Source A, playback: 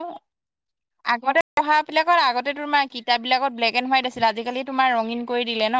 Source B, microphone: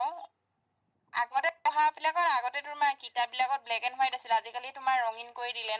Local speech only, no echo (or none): none